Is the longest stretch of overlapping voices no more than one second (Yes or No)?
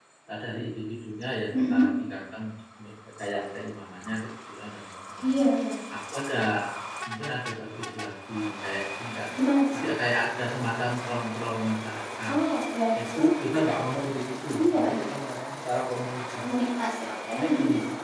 Yes